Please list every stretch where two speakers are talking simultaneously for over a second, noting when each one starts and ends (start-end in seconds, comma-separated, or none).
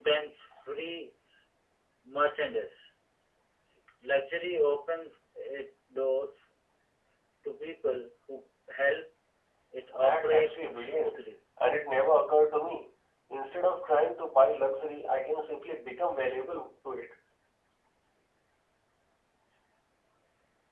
9.9-11.2